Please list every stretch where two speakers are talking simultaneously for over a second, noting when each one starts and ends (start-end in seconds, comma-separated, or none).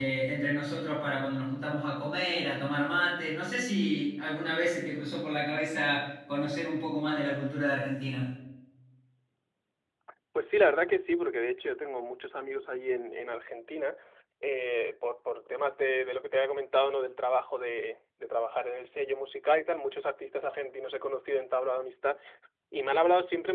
none